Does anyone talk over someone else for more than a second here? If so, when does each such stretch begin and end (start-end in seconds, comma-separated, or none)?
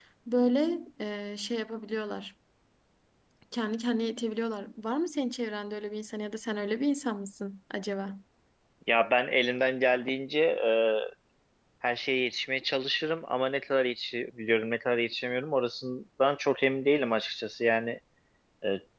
none